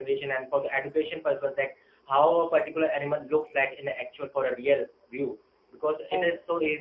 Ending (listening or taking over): listening